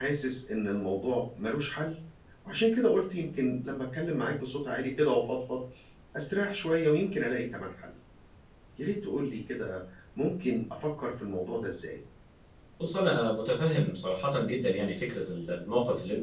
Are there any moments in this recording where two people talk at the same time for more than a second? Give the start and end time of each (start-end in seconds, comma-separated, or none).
none